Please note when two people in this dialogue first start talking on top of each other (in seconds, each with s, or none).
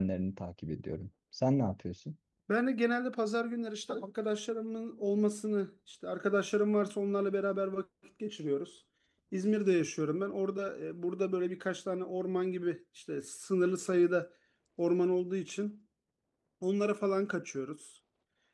none